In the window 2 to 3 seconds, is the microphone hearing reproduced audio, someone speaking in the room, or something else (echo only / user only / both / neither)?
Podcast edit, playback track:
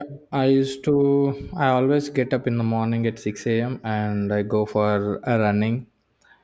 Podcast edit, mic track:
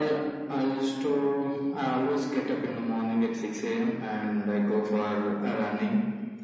echo only